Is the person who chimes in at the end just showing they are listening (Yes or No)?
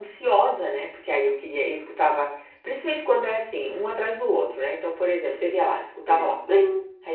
Yes